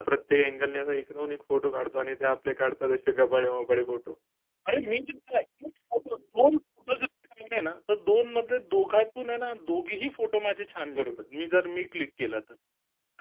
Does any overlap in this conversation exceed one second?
No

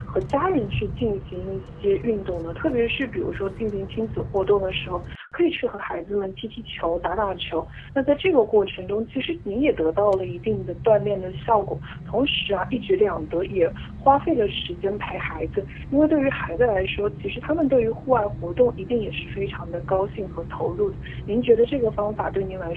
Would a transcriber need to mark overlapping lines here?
No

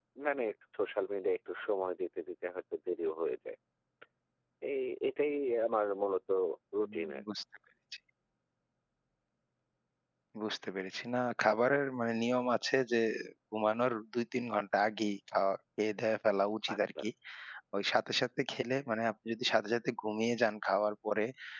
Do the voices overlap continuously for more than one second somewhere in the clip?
No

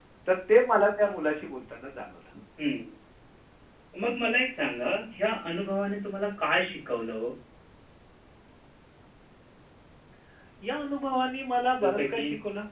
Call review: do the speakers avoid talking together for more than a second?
Yes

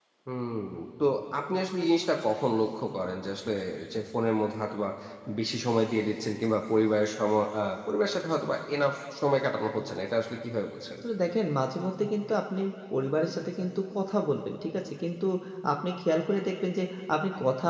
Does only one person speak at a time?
Yes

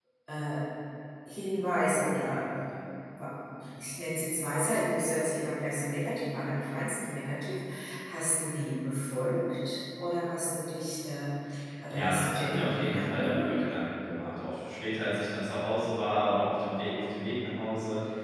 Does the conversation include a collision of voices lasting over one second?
Yes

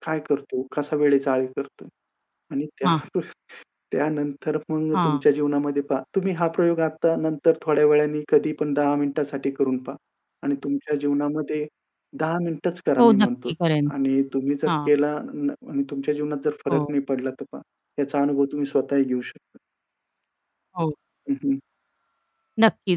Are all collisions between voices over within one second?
Yes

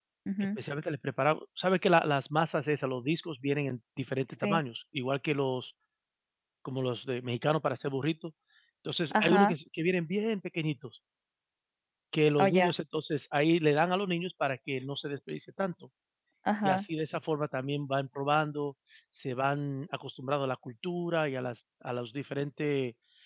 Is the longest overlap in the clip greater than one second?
No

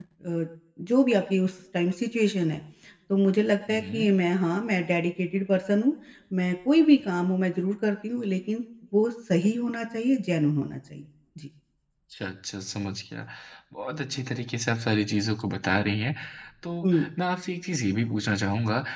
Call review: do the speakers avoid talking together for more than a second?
Yes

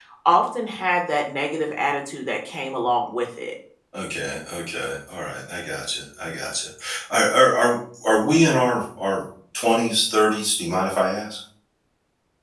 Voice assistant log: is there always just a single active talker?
Yes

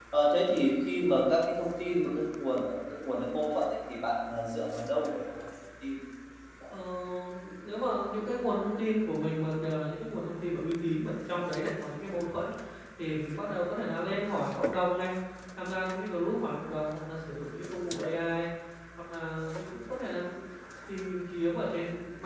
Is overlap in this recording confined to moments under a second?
Yes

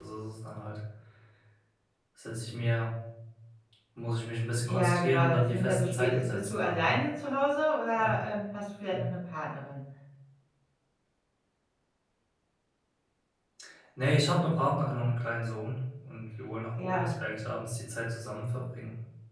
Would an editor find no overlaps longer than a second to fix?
No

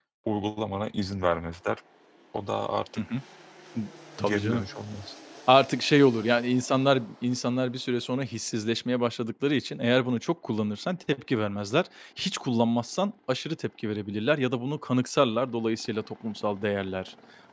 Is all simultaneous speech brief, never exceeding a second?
Yes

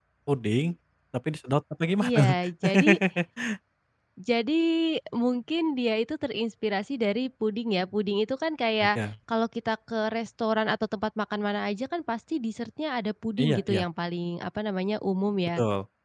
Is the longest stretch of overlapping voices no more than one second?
Yes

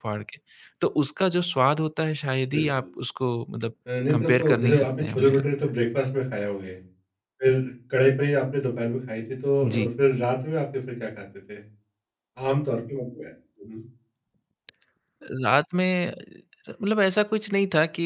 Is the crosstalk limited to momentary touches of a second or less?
No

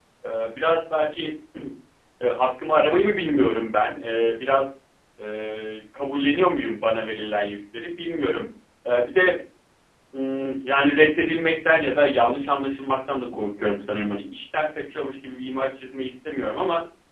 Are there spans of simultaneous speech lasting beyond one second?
No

